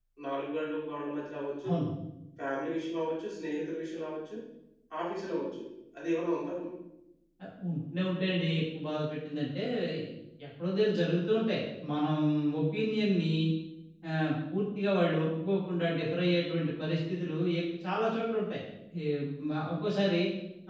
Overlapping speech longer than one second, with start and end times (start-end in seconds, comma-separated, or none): none